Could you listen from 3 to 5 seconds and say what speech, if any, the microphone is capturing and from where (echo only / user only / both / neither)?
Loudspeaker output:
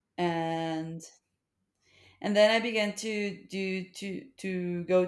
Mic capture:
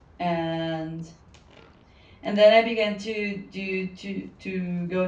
echo only